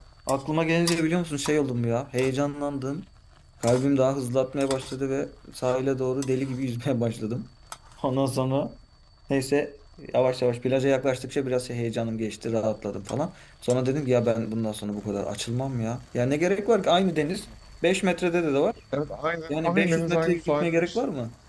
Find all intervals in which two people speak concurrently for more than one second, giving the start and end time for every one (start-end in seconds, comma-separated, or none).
19.5-21.0